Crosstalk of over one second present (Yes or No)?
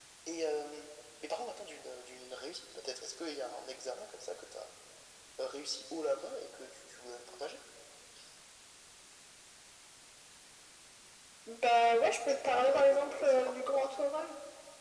Yes